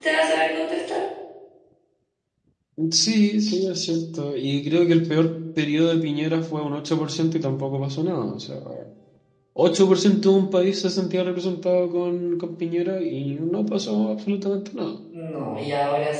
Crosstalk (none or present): none